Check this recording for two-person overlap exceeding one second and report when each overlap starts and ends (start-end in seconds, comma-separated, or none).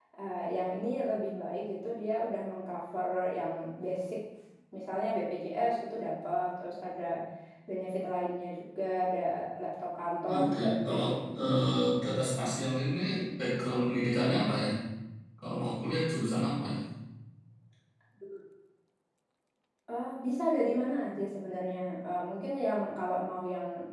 10.3-11.6